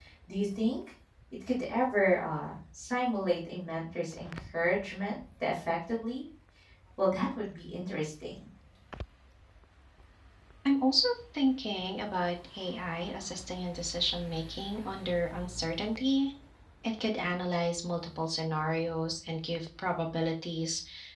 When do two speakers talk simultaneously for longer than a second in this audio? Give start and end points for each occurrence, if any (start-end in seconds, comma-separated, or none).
none